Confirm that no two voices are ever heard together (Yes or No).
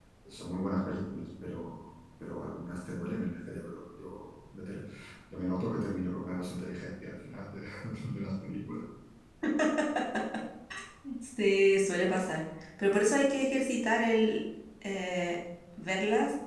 Yes